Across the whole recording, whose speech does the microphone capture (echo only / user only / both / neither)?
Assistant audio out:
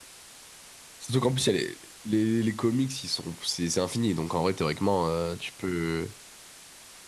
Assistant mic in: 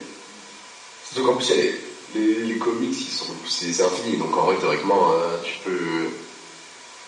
echo only